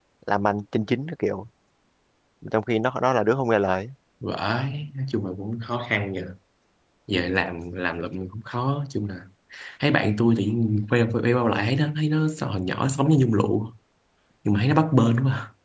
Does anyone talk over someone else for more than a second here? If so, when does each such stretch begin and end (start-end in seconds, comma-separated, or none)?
none